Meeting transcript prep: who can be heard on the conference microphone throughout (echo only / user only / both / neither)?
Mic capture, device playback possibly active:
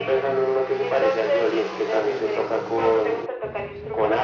echo only